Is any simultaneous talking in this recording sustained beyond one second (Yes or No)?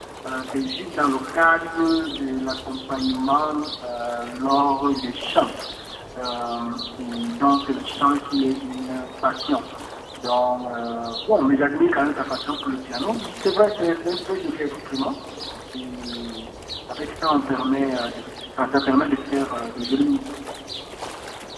No